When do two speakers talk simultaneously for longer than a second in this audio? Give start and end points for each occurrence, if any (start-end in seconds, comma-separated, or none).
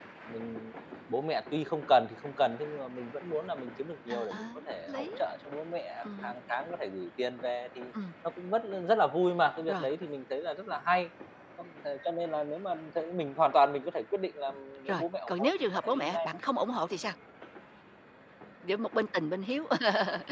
14.9-16.4